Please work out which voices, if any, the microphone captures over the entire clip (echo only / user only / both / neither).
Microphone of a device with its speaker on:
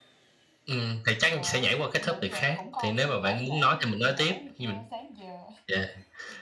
both